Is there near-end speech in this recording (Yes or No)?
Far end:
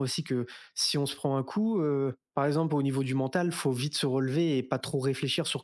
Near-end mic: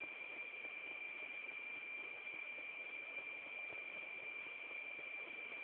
No